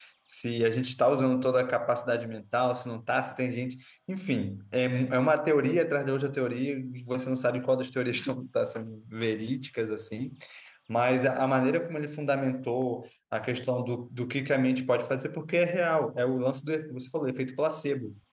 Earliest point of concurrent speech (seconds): none

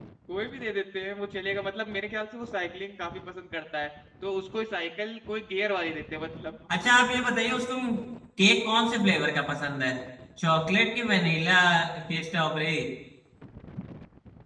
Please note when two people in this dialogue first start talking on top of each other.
none

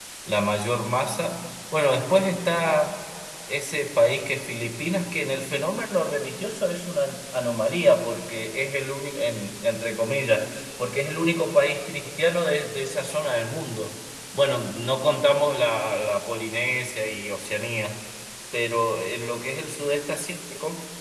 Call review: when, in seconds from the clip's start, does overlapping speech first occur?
none

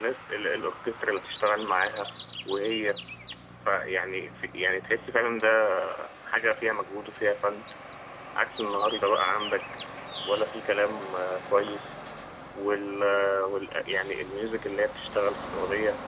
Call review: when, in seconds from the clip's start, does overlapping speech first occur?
none

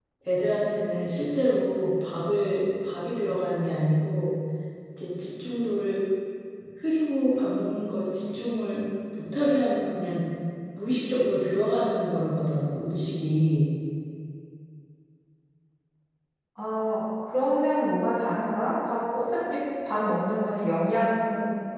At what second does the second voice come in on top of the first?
none

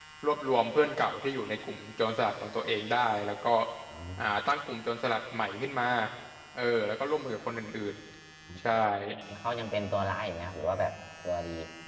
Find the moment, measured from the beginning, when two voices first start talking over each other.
none

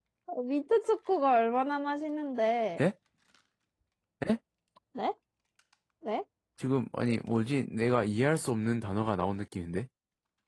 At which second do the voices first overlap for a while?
none

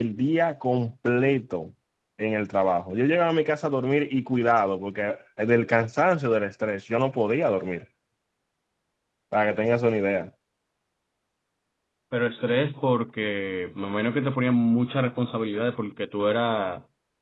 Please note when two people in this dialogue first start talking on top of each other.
none

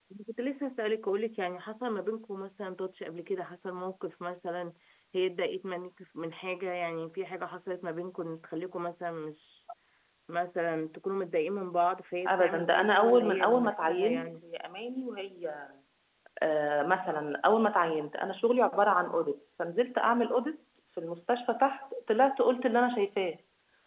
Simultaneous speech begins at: 12.2 s

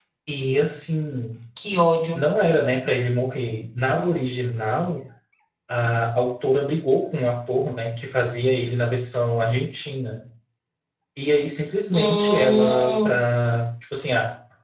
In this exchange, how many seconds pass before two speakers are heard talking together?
11.9 s

